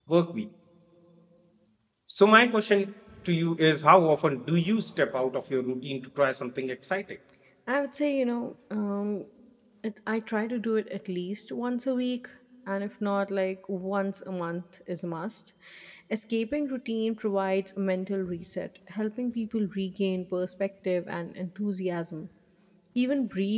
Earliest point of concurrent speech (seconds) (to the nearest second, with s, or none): none